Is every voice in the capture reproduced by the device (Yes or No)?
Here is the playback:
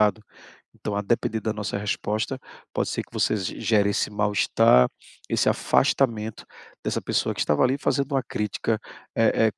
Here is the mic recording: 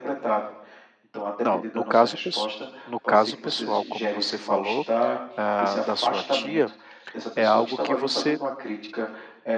No